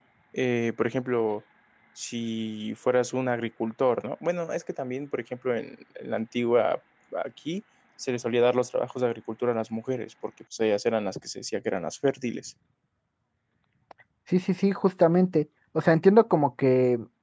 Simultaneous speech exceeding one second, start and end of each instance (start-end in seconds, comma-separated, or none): none